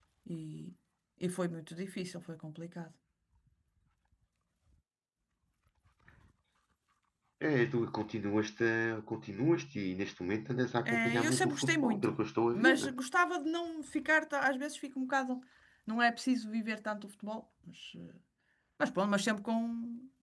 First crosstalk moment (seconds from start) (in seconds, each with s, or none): 10.9 s